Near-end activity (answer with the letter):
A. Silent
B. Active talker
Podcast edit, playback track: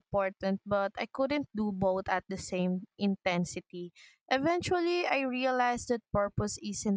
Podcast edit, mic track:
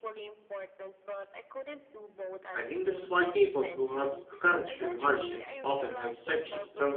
B